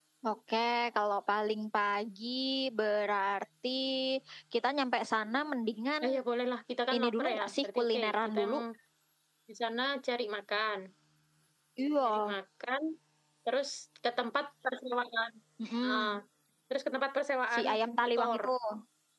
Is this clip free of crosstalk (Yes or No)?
No